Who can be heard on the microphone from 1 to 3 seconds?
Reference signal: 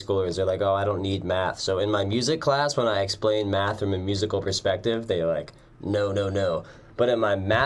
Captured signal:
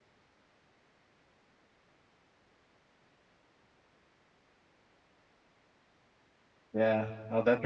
neither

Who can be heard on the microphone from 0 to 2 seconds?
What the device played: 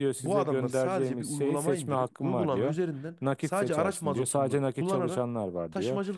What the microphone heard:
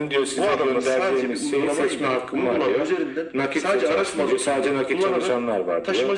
echo only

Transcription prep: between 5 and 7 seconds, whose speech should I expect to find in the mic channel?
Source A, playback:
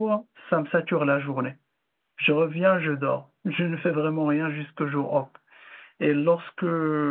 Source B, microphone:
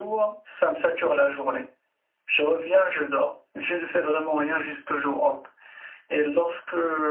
echo only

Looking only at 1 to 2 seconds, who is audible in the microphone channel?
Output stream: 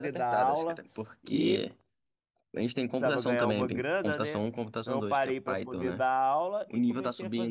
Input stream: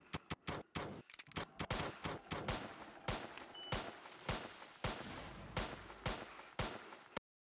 neither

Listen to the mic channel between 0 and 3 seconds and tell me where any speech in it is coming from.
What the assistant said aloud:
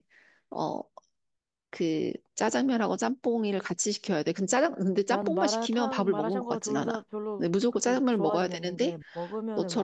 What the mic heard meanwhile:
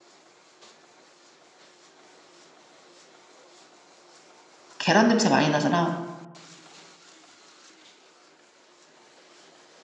neither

